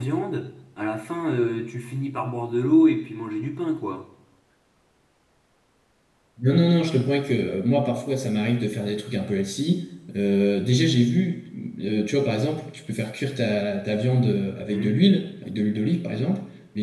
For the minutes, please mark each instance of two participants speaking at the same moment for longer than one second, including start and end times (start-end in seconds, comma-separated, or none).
none